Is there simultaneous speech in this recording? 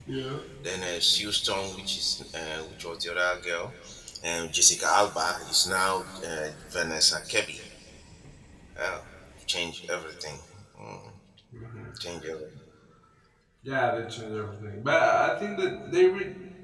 No

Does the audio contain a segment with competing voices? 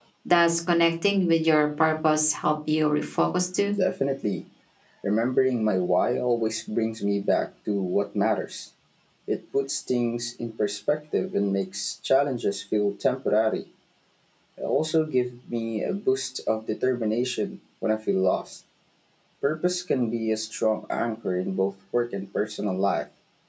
No

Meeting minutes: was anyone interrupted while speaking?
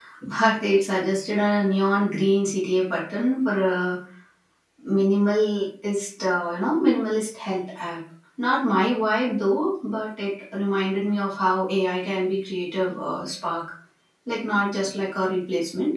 No

